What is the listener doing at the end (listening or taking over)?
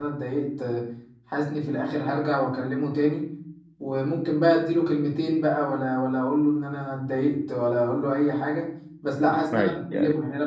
listening